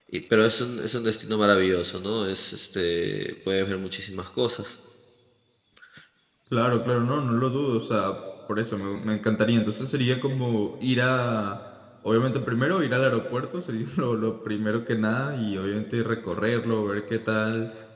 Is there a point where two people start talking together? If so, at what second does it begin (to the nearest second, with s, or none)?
none